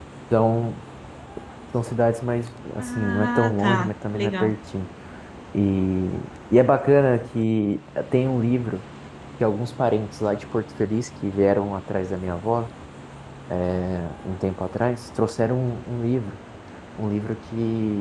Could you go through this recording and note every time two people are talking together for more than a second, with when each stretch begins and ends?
2.8-4.5

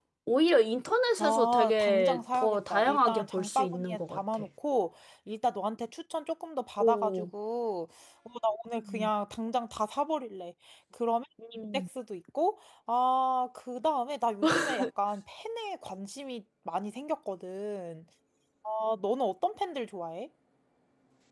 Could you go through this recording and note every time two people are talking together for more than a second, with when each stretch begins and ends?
1.2-4.4

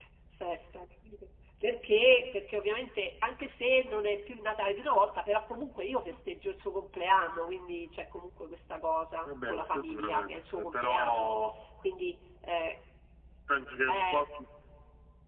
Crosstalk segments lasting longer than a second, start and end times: 9.2-11.3

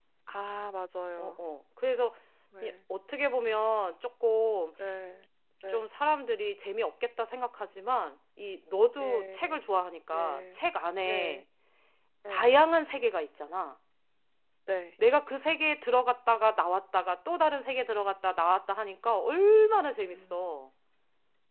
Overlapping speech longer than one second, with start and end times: none

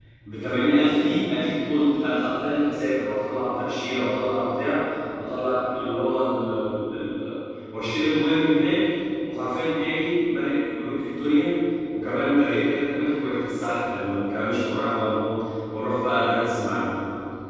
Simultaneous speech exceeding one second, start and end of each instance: none

